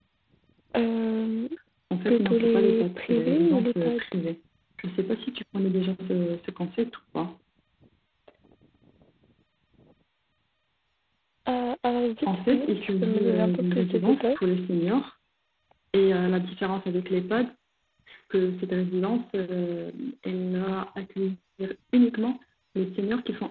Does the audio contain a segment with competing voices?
Yes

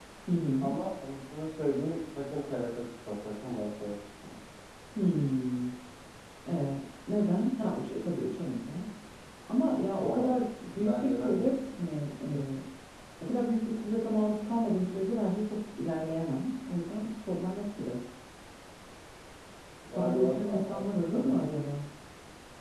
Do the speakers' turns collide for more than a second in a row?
Yes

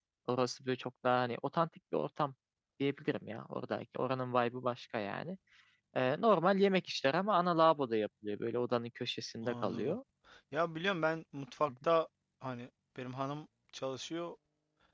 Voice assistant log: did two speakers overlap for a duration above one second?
No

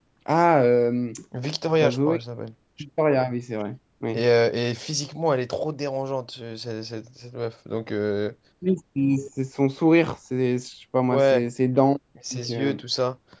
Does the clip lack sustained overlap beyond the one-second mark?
Yes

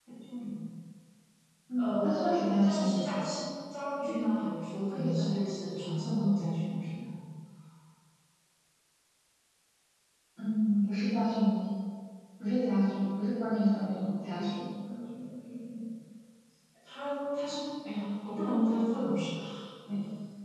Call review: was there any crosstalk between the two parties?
Yes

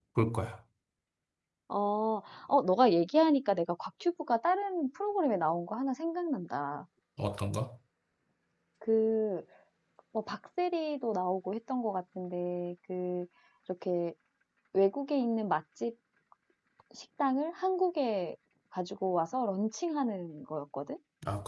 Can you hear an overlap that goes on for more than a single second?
No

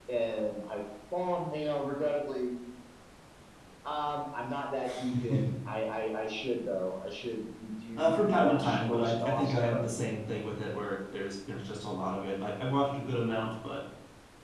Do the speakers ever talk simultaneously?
Yes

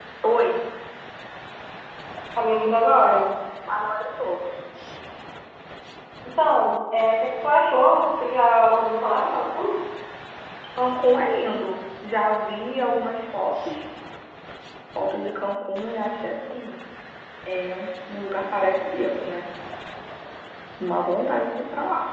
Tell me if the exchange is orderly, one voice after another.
Yes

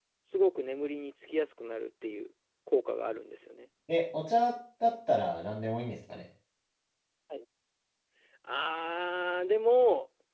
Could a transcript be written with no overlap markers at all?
Yes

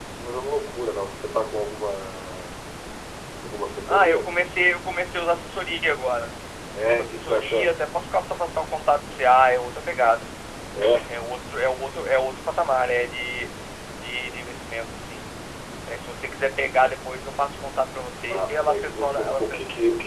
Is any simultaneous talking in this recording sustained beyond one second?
Yes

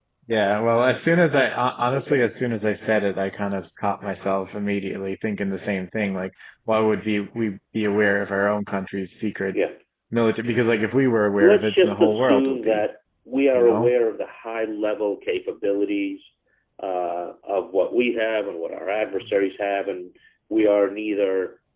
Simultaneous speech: Yes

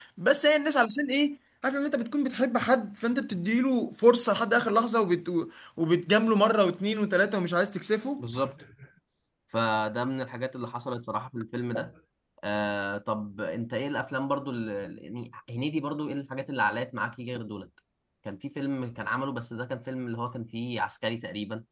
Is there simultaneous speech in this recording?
No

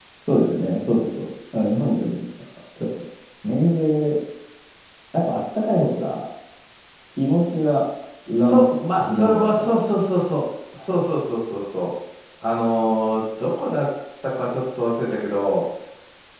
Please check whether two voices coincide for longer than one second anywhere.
Yes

